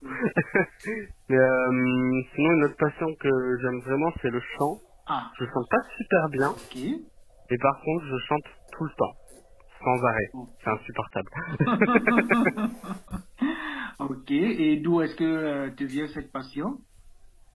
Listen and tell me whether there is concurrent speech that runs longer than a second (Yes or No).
No